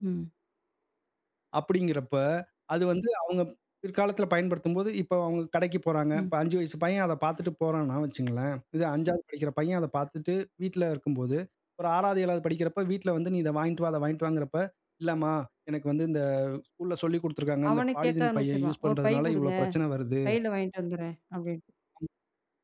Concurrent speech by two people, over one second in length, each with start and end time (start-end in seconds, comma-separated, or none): 17.7-19.5